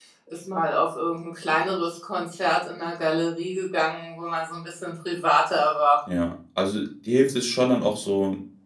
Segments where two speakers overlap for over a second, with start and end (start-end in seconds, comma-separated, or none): none